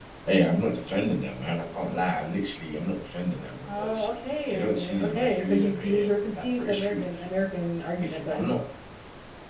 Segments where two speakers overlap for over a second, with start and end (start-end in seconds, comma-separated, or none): 4.5-7.0